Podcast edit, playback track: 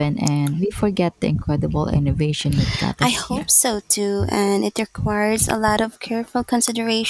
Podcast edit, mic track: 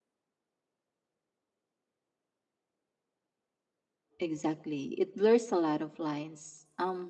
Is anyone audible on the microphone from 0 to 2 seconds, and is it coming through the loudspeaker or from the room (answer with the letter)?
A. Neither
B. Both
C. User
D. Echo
A